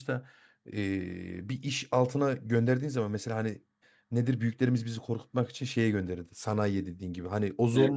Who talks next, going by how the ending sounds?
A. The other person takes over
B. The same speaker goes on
B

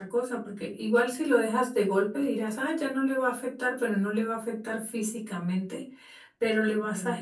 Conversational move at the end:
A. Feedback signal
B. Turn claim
A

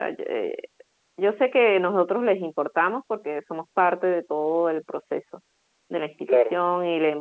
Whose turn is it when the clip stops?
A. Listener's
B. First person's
B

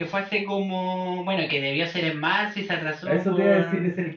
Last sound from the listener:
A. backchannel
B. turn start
B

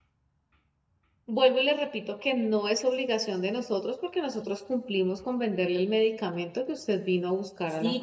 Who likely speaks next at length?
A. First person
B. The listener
B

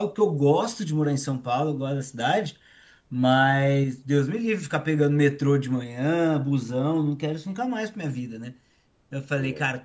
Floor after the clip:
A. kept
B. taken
A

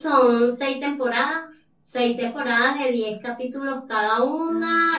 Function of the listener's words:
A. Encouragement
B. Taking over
A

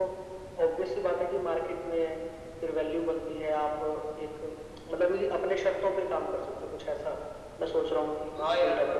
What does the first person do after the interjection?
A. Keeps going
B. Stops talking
B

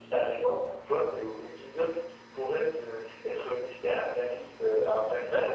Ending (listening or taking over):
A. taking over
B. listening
A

